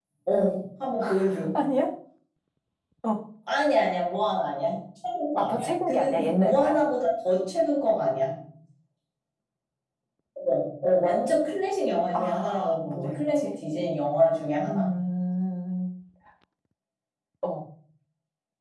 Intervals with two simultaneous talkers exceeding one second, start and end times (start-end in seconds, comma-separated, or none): 5.4-6.8, 12.1-13.5